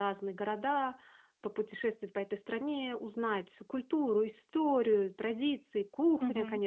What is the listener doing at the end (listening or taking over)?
taking over